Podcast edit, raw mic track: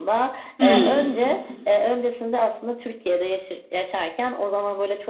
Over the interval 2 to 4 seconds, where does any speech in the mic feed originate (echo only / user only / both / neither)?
echo only